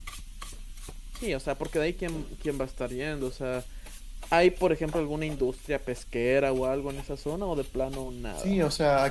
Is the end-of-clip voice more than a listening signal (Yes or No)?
Yes